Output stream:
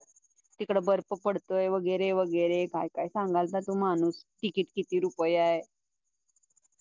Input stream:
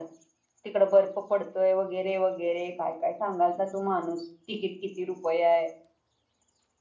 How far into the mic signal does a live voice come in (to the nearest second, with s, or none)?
none